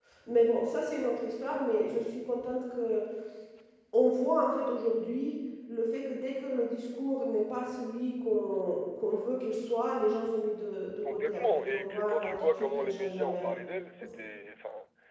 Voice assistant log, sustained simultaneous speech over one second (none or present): present